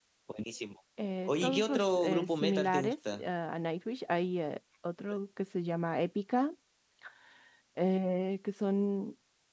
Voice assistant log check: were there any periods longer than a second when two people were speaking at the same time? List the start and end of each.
1.2-3.2

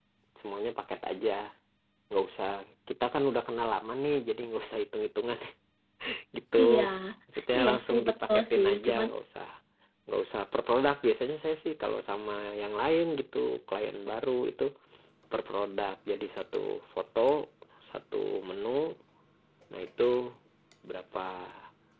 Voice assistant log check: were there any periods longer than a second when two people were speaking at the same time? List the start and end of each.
7.6-9.1

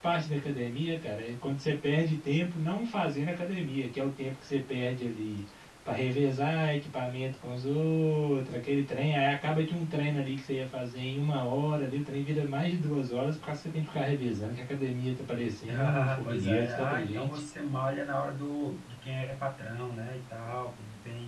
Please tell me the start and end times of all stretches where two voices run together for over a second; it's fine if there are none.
15.7-17.4

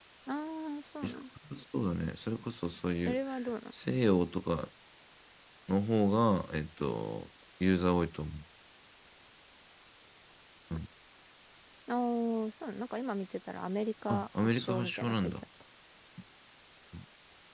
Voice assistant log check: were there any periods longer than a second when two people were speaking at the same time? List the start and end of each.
14.1-15.3

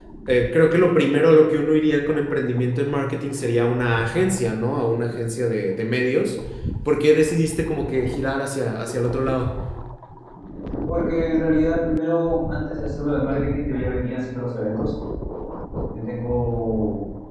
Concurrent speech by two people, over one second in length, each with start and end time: none

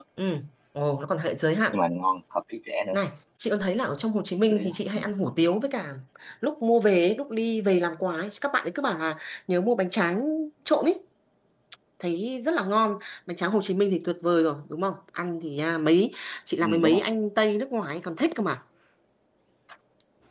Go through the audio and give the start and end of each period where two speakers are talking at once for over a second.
none

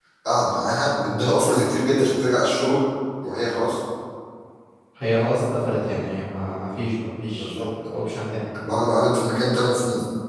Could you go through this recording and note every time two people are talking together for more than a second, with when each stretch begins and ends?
none

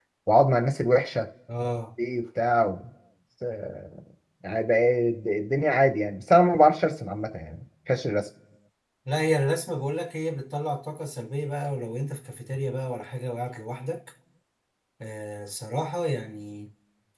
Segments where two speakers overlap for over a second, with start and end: none

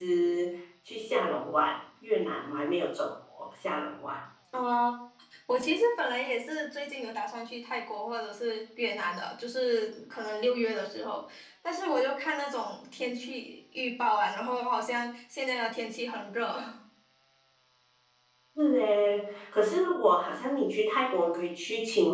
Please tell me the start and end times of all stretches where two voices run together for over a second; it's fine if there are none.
none

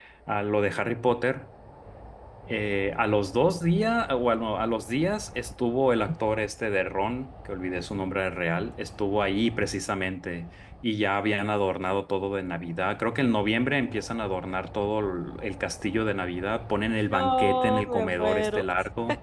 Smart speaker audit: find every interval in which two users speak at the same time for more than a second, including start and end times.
17.1-18.6

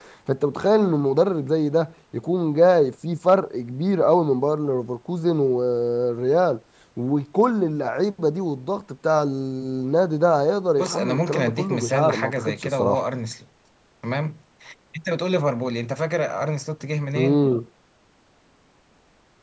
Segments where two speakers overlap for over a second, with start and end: 10.8-13.0

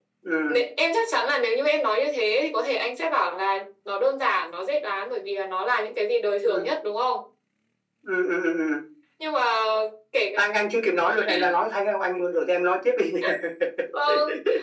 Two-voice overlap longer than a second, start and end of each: none

